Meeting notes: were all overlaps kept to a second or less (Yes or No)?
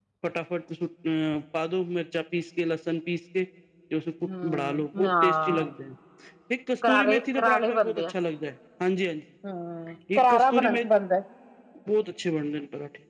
No